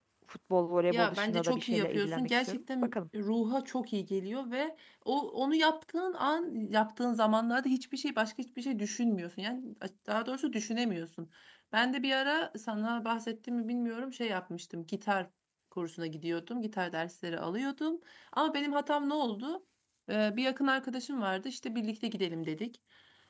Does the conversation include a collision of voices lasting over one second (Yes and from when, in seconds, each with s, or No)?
Yes, from 0.9 s